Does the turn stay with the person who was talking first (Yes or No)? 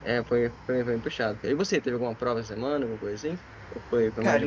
No